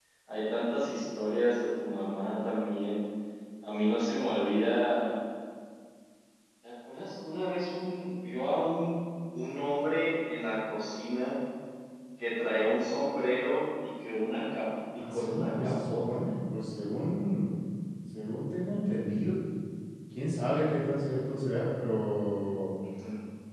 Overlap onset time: 15.0 s

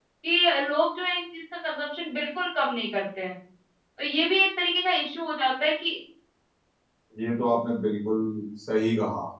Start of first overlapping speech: none

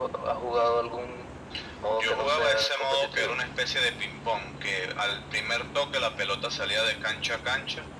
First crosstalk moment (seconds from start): 2.0 s

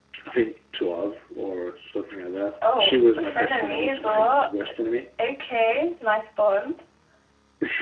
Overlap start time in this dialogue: 2.5 s

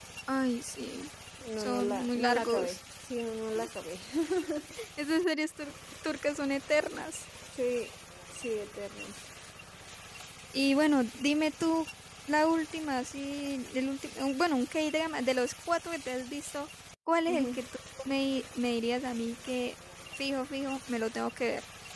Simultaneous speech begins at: 1.6 s

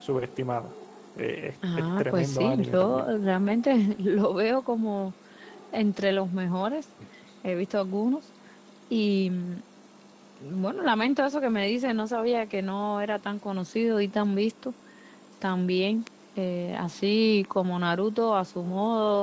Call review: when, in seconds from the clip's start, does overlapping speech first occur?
1.6 s

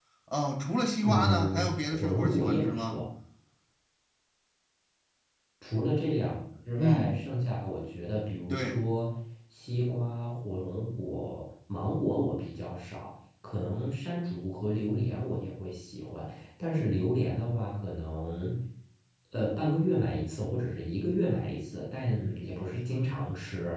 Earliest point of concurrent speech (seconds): 1.0 s

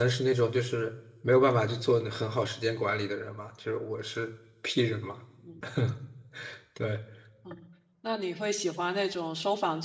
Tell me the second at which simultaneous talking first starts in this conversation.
none

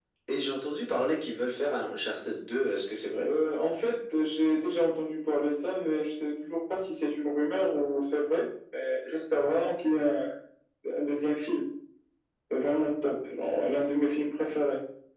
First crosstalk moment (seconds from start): none

